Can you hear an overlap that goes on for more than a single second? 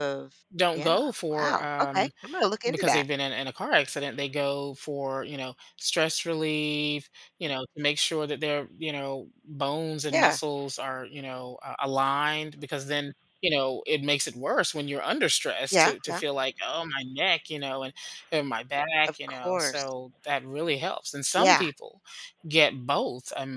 Yes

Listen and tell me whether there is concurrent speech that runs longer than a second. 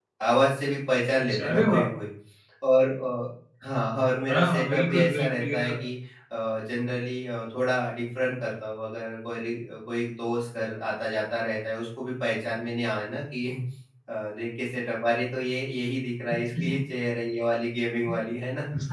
Yes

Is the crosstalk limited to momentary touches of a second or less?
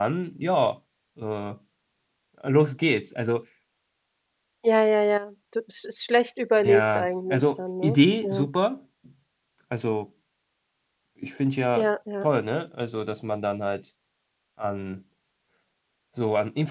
No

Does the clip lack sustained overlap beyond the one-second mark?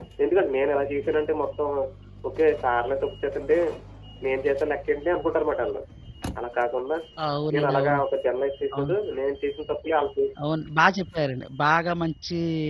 Yes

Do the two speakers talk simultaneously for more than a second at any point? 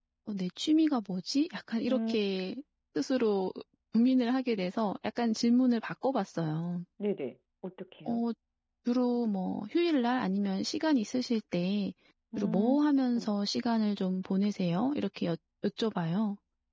No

